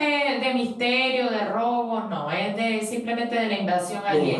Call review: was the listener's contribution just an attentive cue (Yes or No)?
No